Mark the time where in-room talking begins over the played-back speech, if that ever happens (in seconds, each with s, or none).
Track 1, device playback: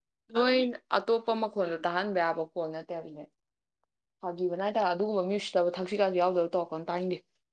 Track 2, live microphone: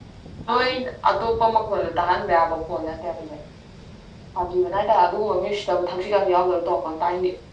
none